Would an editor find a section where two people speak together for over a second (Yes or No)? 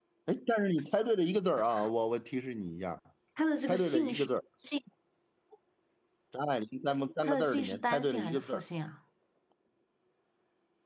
Yes